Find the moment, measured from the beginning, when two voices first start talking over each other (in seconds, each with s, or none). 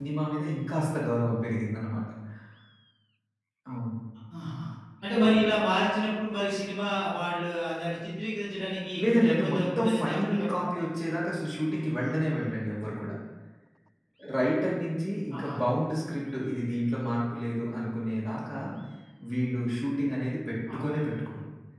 9.1 s